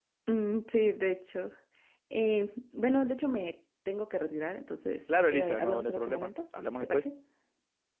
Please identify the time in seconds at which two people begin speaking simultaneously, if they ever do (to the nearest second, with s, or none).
5 s